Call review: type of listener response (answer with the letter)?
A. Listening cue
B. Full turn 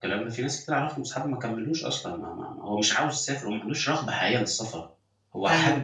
A